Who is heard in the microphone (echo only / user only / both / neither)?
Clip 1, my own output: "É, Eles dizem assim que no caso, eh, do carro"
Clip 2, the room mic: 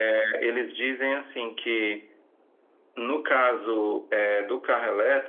echo only